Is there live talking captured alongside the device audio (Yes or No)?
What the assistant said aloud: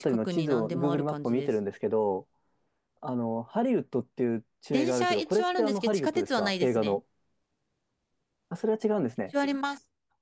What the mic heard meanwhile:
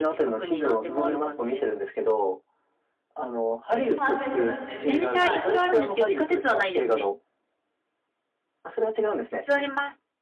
Yes